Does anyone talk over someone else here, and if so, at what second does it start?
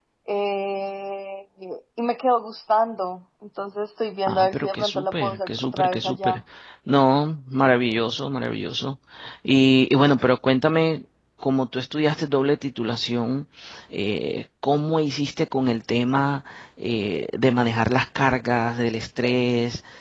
4.3 s

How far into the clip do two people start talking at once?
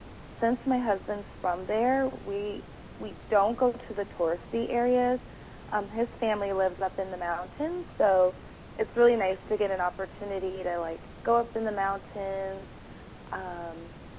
none

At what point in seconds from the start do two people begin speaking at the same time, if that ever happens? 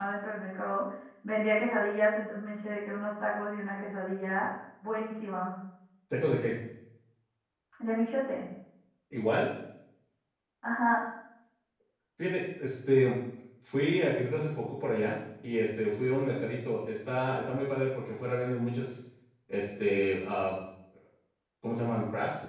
none

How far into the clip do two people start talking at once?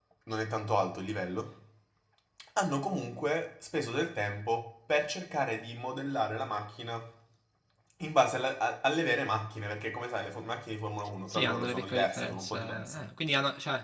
11.3 s

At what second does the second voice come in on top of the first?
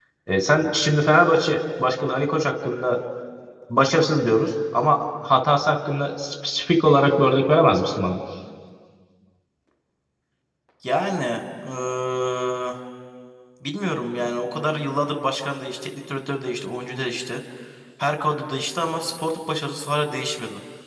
none

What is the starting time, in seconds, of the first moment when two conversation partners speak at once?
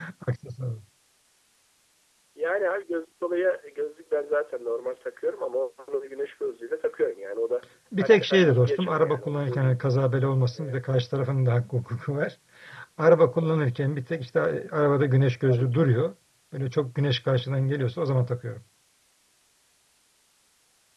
8.0 s

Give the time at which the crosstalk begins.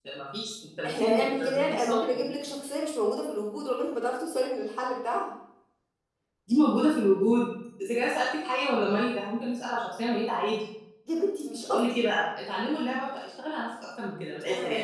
0.8 s

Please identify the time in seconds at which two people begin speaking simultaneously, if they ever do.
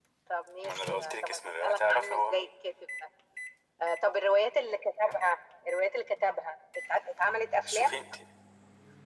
0.6 s

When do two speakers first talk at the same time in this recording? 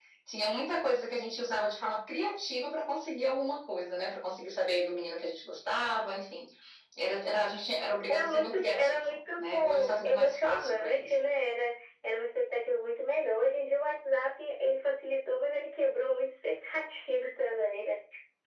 8.1 s

